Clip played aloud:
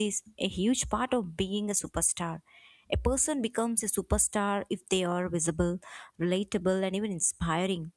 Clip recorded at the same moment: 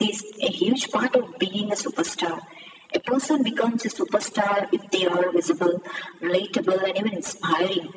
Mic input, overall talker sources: echo only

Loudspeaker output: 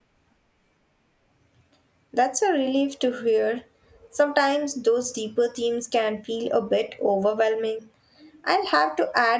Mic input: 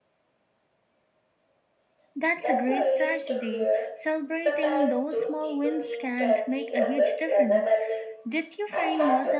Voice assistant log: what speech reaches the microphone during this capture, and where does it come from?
both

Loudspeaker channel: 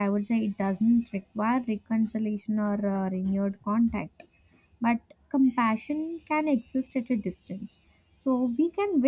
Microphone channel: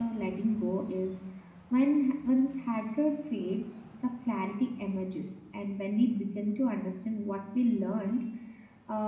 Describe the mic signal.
user only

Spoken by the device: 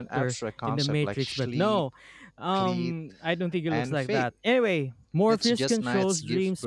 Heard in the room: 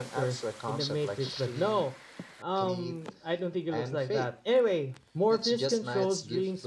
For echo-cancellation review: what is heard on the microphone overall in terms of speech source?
echo only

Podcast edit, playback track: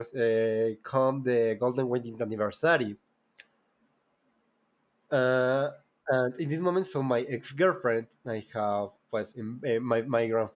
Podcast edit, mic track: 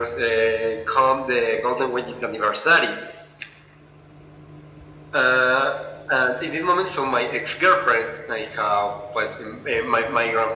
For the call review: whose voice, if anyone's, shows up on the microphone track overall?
echo only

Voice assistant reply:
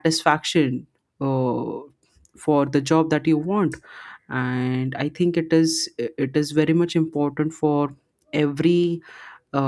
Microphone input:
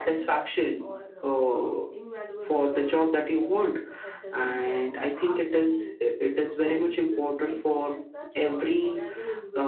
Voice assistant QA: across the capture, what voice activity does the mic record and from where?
both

